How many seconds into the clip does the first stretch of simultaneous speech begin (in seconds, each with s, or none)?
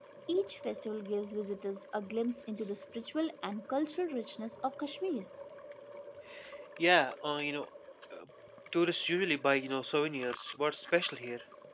none